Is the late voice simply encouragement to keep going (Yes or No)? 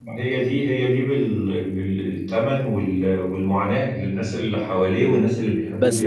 No